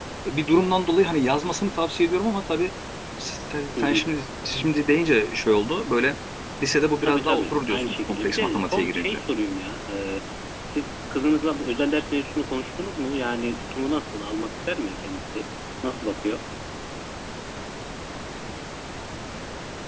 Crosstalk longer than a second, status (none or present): present